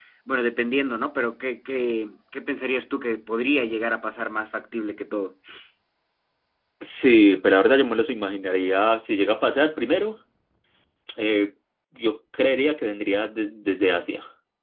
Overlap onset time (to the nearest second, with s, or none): none